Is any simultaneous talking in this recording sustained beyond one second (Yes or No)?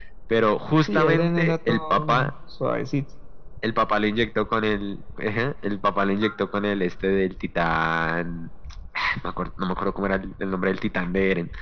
Yes